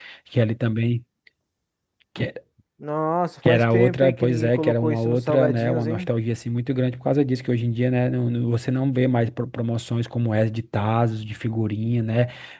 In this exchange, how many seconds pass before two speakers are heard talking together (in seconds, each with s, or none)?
3.5 s